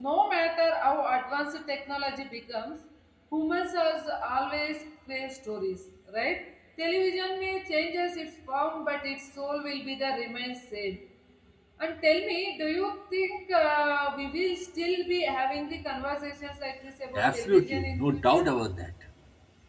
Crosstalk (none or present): present